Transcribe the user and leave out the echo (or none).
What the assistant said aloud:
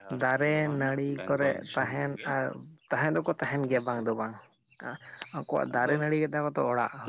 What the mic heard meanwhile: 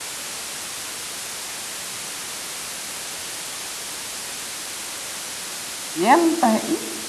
ᱧᱮᱞ ᱛᱟᱦᱮᱸᱫ ᱤᱧ